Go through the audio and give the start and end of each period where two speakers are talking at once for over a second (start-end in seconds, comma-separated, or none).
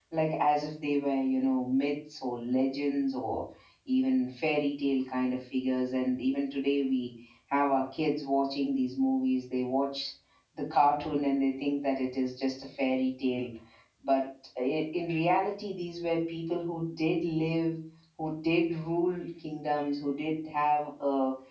none